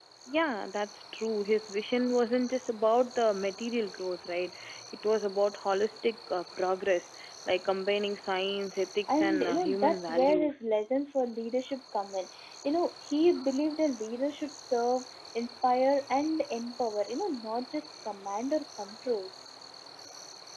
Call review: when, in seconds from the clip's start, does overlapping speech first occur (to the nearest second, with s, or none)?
9 s